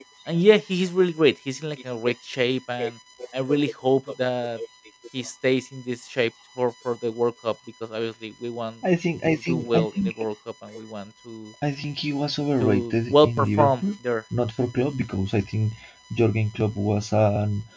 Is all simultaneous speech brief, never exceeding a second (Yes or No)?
No